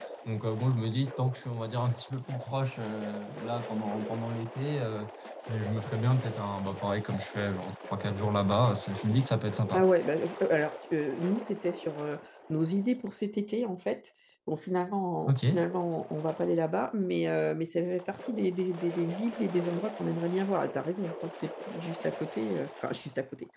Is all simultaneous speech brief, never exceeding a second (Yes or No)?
Yes